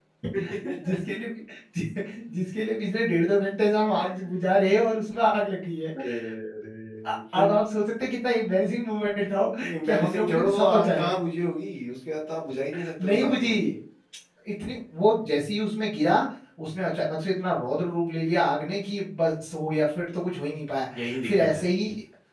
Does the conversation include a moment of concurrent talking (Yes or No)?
Yes